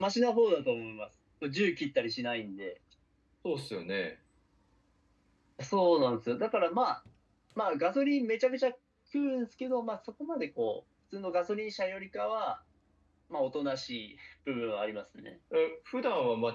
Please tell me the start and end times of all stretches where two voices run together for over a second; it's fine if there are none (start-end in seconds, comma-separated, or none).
none